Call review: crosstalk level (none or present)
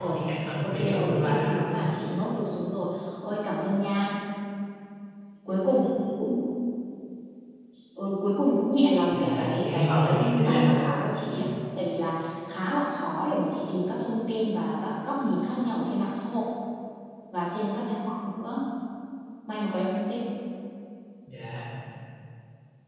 present